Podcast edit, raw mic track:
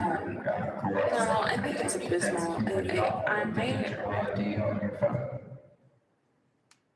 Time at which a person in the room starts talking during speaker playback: 1 s

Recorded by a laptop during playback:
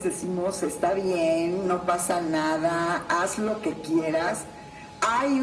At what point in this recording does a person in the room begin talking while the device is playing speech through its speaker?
none

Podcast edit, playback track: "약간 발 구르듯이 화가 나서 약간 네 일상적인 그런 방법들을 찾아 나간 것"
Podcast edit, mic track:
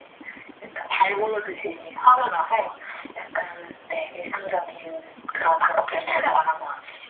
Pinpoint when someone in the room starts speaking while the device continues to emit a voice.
none

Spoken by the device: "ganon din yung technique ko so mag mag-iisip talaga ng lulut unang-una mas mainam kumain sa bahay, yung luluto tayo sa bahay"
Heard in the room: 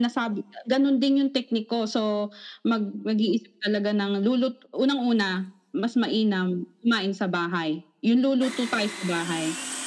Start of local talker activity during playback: none

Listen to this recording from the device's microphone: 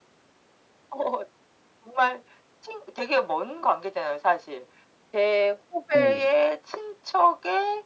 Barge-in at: 6 s

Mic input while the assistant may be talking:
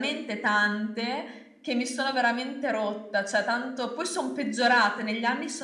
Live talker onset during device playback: none

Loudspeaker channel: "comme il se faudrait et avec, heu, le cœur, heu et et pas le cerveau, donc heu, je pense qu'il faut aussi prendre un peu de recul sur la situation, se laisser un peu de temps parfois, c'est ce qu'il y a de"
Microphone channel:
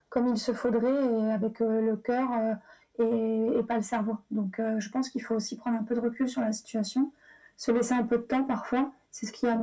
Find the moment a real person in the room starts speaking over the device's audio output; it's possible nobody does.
none

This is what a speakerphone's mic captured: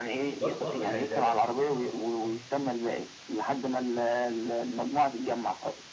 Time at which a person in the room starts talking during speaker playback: 0 s

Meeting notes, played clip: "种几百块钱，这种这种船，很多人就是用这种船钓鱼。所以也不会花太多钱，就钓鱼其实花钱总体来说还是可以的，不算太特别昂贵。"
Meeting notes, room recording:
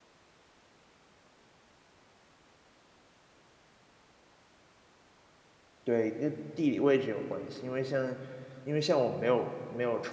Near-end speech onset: 6 s

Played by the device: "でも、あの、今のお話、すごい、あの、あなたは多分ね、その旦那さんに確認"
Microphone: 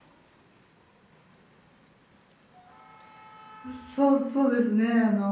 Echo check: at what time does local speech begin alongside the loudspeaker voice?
4 s

